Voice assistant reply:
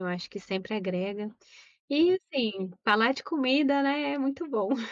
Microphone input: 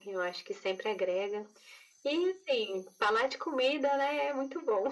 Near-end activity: none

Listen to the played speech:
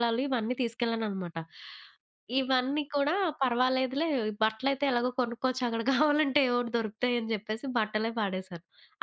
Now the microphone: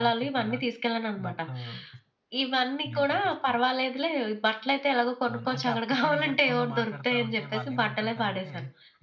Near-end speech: present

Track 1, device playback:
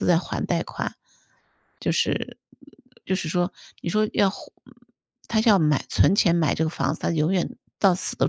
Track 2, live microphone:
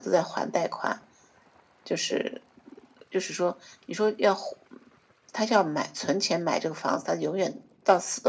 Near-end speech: none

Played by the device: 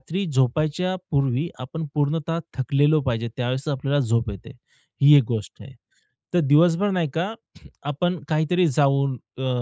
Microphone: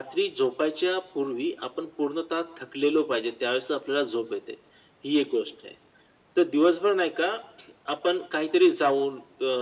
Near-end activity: none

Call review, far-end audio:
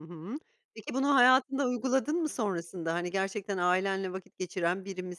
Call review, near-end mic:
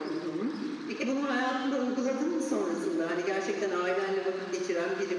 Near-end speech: none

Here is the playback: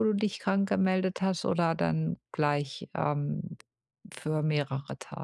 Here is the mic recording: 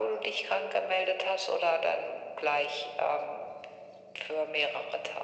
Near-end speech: none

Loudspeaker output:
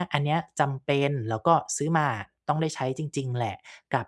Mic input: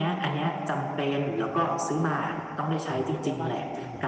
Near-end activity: present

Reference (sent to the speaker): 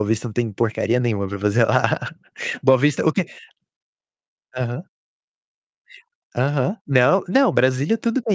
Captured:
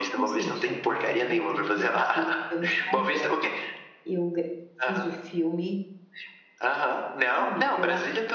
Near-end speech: present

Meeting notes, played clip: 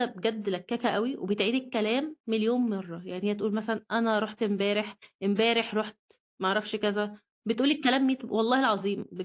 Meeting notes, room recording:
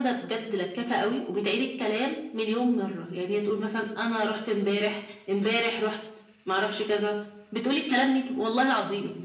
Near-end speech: none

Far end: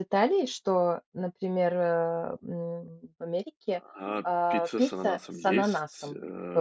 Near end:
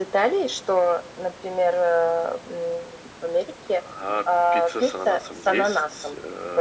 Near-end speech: none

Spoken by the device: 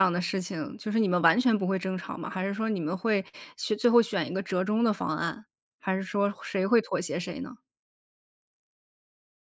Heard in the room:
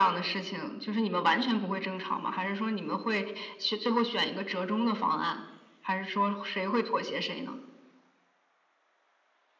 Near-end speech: none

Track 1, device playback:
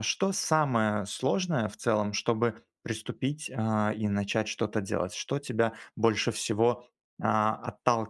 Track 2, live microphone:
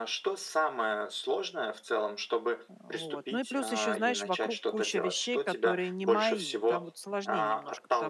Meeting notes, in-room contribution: present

